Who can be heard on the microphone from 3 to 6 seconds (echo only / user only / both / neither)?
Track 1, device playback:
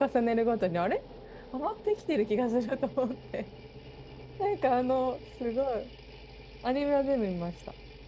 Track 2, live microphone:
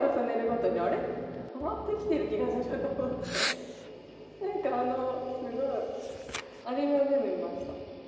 echo only